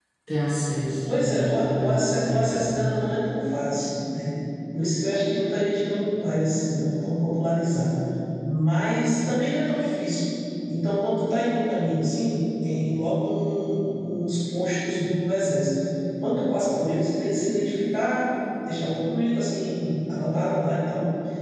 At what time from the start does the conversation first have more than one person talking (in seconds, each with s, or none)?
1.1 s